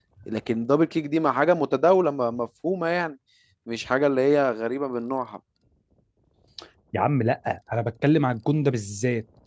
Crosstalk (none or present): none